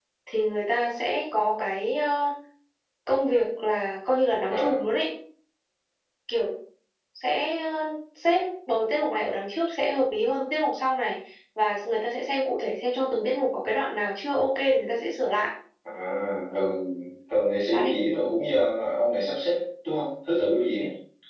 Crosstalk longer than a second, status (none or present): none